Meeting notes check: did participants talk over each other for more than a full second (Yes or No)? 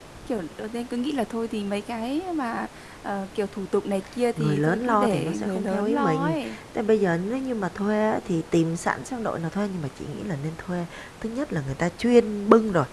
Yes